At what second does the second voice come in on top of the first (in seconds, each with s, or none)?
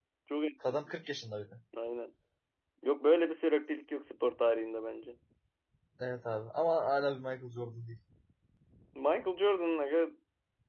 none